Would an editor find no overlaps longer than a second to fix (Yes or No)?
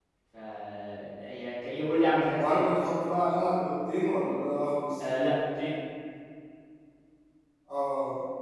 Yes